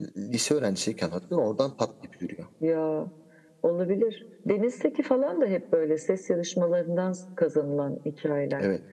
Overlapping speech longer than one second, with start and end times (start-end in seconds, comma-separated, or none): none